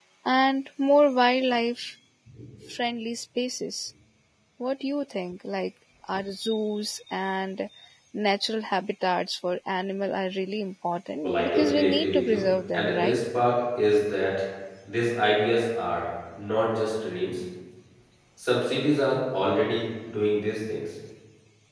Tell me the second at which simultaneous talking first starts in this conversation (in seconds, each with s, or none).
11.2 s